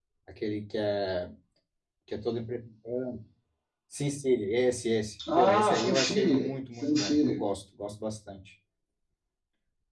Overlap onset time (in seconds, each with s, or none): 5.2 s